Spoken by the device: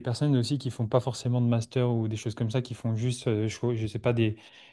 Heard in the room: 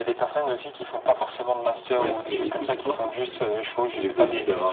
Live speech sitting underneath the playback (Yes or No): No